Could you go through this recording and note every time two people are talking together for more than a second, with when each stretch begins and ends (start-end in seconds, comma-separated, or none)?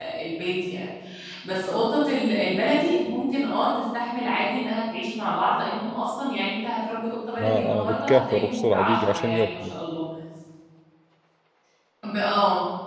7.4-9.7